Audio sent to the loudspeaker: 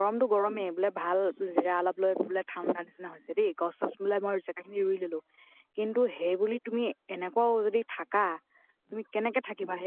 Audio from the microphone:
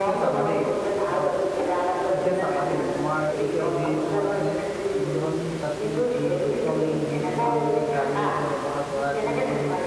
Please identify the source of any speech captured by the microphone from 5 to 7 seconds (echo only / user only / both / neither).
both